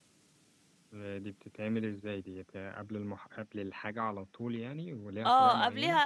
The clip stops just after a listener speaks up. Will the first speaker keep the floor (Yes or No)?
No